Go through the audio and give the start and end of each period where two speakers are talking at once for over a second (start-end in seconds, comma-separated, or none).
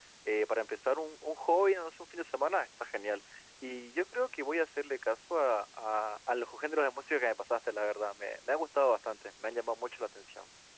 none